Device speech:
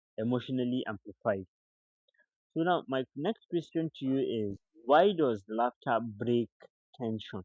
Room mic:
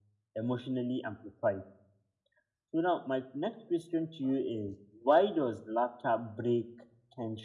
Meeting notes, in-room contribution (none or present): none